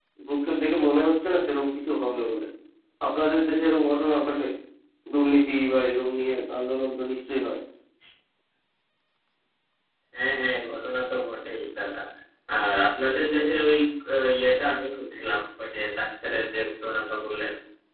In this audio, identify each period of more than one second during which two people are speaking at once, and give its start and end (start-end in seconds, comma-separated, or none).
none